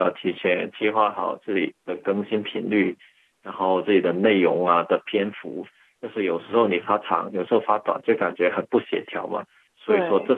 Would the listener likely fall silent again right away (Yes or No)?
Yes